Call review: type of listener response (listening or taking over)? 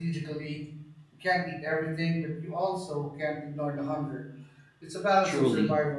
taking over